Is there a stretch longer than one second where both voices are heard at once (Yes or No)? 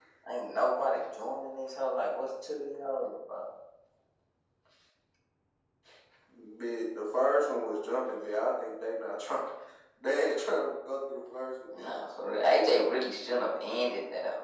No